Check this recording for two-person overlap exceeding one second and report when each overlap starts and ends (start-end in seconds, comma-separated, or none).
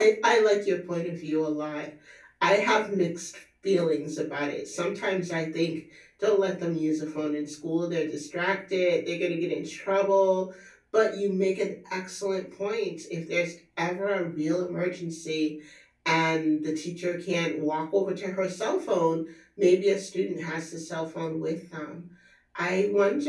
none